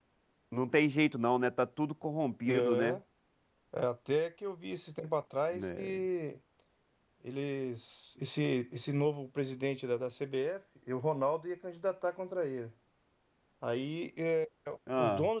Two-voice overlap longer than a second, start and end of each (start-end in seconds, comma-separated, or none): none